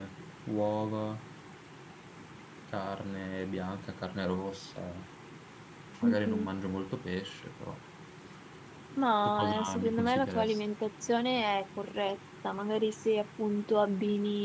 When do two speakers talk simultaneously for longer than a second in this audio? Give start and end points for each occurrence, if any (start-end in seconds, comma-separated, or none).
9.2-10.6